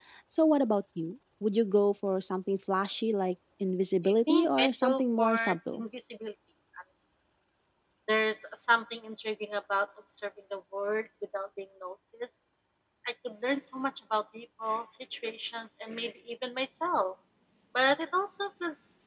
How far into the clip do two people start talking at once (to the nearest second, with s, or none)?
4 s